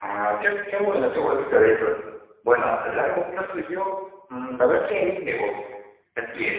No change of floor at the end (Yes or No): Yes